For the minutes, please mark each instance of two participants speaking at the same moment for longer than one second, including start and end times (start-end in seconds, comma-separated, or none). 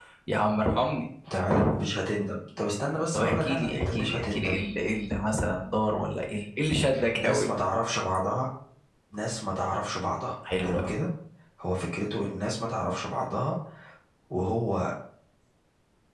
3.1-4.6